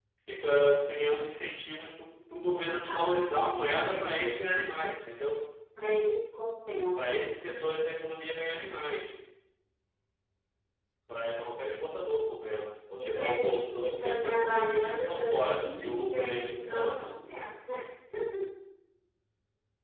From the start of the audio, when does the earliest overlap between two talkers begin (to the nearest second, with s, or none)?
3 s